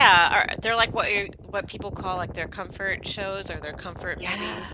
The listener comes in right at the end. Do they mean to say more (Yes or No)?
Yes